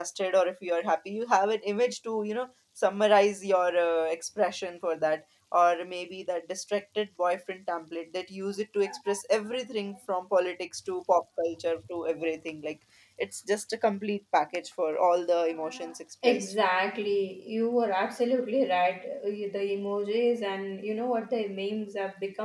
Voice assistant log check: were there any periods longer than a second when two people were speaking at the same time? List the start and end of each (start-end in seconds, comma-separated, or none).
none